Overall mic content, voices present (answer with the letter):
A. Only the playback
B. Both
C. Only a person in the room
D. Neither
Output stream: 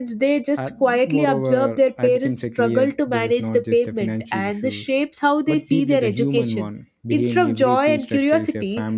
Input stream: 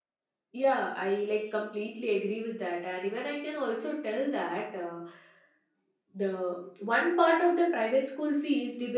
C